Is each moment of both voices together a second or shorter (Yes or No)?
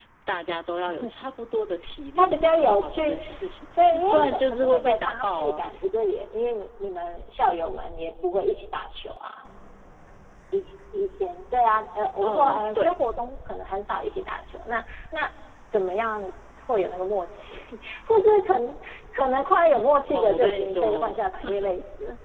No